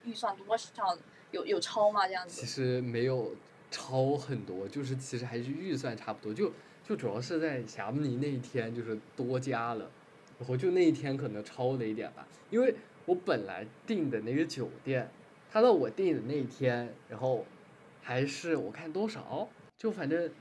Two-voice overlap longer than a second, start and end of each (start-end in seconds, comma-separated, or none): none